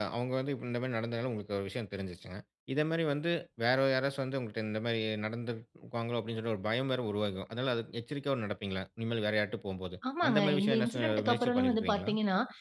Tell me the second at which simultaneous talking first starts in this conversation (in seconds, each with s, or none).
10.0 s